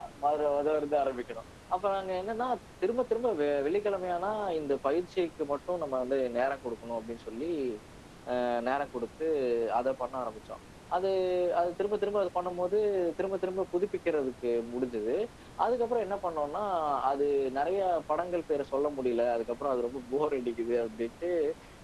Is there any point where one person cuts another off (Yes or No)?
No